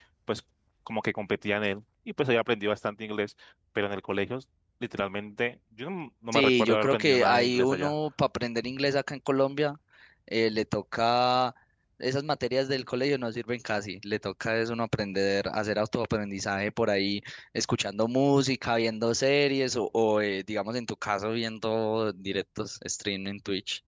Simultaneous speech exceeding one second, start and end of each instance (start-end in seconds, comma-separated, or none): 6.3-7.9